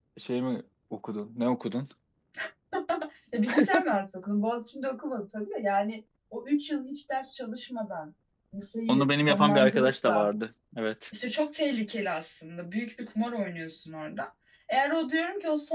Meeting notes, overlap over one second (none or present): present